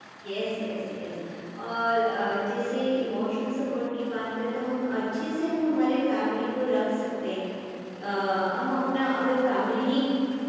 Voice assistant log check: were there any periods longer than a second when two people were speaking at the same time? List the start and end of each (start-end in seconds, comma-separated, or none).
none